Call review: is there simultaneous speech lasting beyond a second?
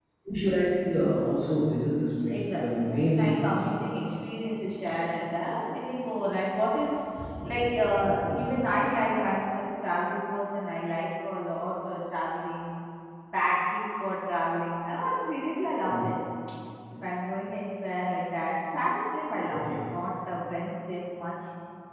Yes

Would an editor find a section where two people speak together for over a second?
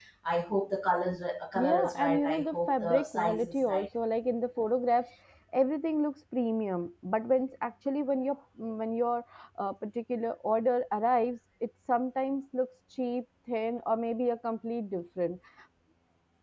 Yes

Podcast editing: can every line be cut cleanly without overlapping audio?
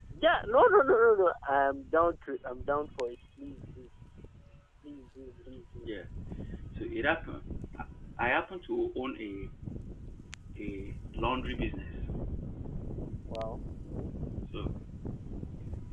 Yes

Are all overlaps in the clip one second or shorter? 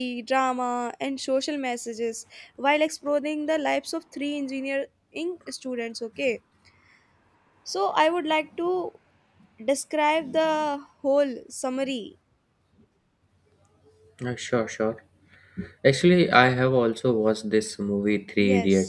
Yes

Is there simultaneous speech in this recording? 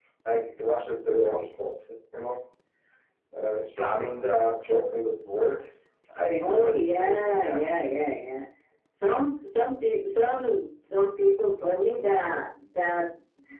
Yes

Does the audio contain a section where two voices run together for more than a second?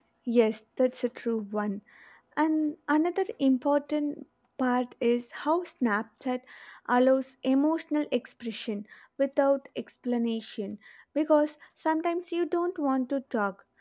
No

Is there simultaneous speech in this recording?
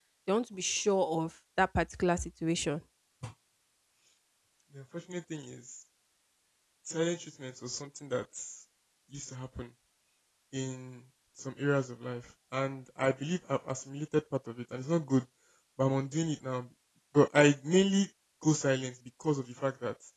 No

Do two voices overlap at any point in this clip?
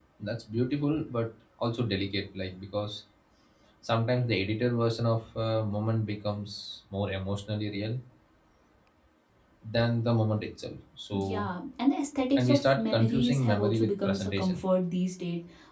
Yes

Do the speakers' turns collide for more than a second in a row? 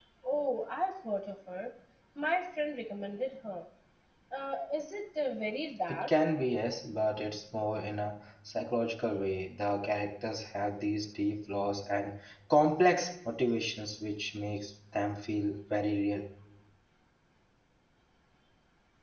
No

